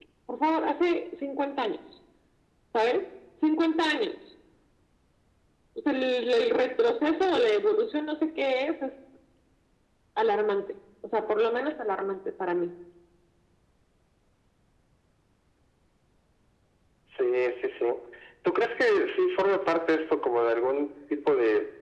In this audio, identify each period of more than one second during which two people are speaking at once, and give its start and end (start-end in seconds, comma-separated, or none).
none